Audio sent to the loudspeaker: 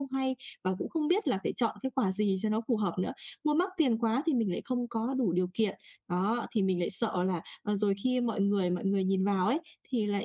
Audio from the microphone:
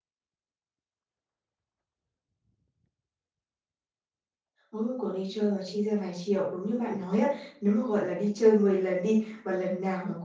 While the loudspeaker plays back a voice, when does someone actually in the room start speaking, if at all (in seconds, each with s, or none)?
4.7 s